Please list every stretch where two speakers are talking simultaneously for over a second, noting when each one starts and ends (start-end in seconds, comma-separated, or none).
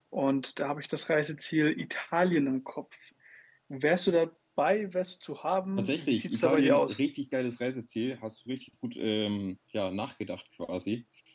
5.8-7.0